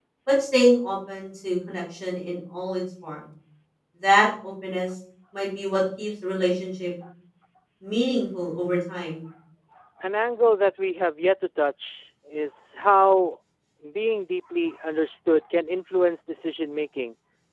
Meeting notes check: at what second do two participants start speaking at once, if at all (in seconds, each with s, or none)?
none